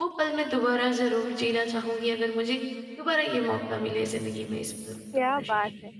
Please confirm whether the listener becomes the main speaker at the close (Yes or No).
Yes